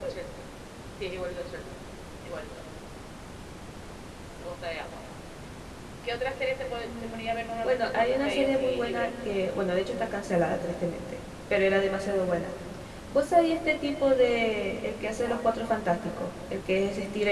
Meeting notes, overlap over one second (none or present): present